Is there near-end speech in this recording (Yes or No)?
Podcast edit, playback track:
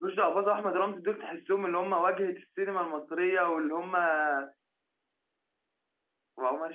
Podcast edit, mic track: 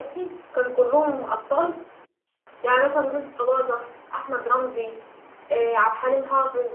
Yes